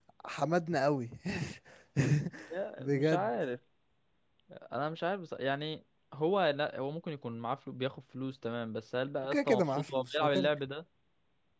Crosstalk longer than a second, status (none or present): present